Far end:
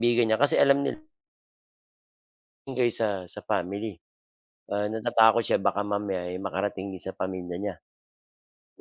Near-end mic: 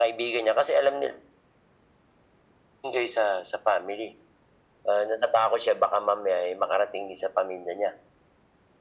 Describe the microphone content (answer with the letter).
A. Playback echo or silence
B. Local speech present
A